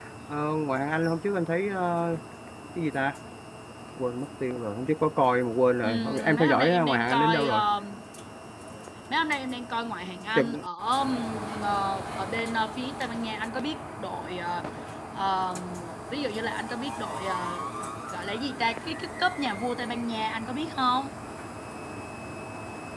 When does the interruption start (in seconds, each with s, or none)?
5.8 s